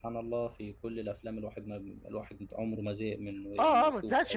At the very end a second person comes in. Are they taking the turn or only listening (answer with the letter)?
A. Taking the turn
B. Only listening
A